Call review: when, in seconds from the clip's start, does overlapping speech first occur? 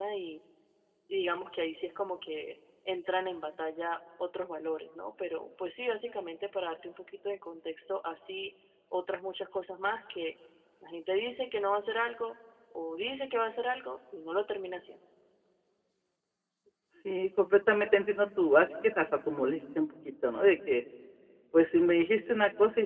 none

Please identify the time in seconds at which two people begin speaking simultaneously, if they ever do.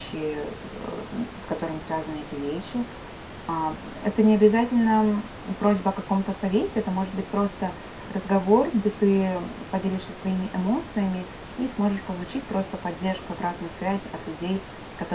none

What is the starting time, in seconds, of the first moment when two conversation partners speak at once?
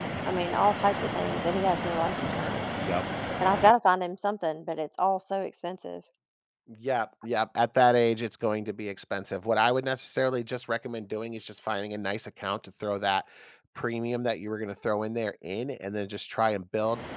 none

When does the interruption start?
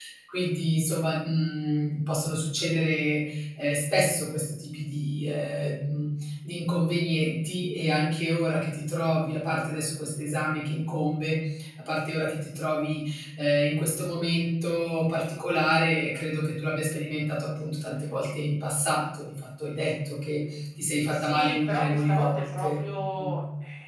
21 s

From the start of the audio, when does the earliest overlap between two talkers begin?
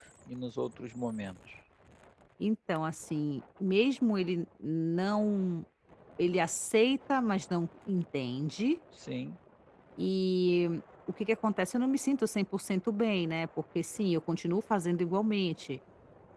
none

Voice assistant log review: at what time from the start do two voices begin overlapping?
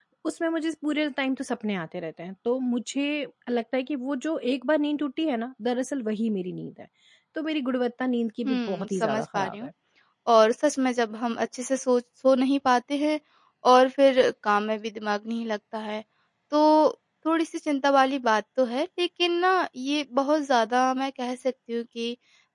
8 s

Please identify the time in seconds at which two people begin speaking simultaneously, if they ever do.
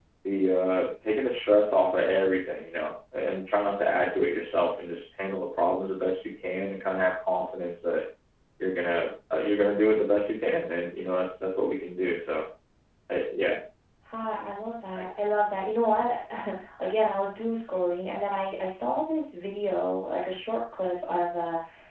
none

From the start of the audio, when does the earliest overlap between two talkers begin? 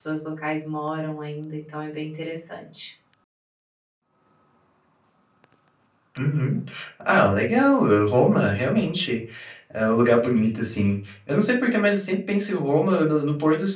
none

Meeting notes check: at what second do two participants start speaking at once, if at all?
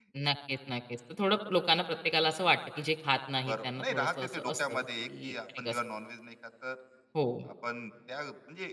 3 s

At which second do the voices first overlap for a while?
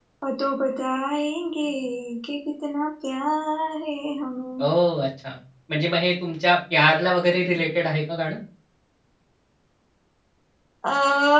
none

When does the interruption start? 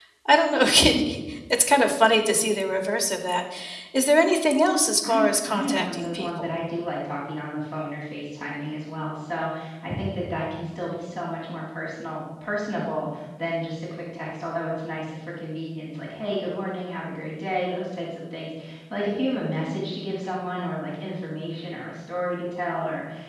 5 s

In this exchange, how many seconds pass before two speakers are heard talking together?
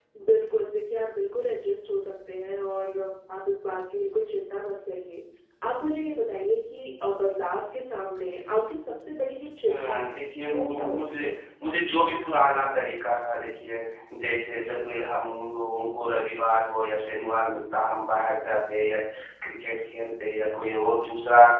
10 s

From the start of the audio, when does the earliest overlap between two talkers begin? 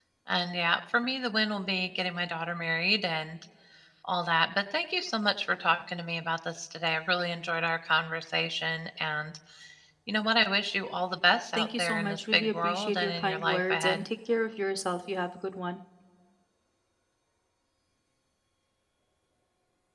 12 s

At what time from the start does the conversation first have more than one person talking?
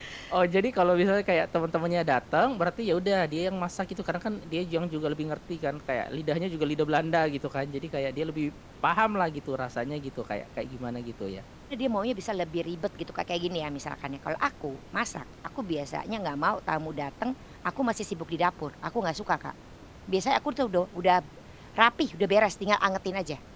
none

